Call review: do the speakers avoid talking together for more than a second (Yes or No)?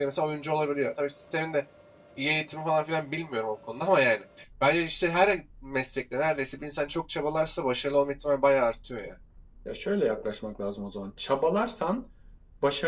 Yes